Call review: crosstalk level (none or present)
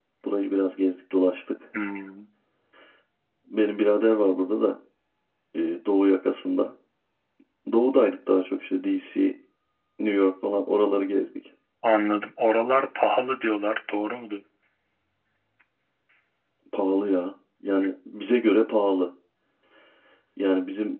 none